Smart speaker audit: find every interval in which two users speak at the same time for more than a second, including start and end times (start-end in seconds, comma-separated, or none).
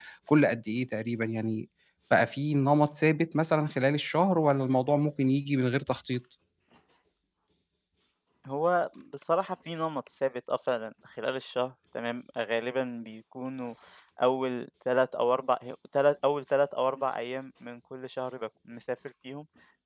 none